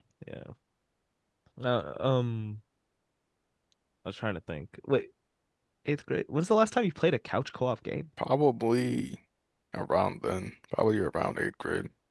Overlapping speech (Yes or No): No